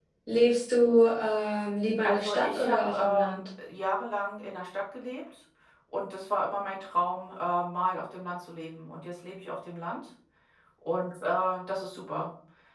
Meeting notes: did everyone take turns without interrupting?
No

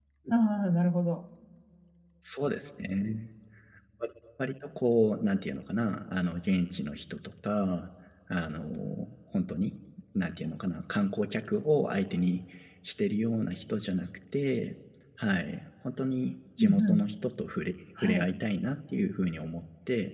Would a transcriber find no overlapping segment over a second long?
Yes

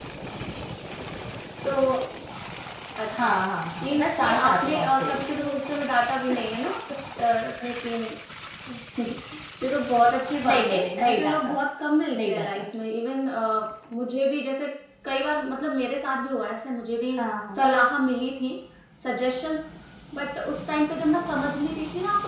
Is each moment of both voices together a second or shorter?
No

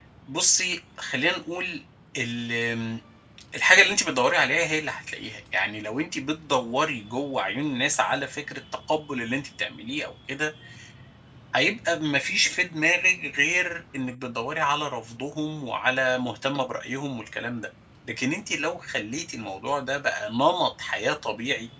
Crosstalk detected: No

